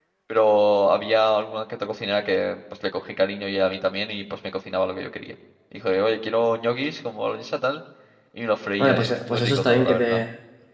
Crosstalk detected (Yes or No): Yes